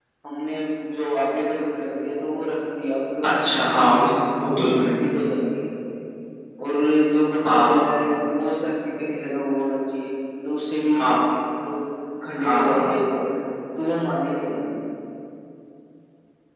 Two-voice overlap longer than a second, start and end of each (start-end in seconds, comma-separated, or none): 3.2-5.0